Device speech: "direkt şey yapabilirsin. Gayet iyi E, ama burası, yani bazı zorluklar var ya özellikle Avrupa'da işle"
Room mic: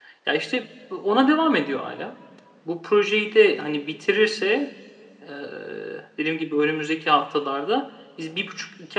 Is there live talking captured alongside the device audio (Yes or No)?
Yes